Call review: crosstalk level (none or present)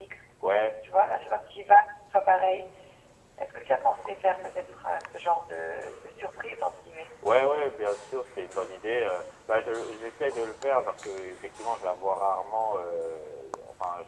none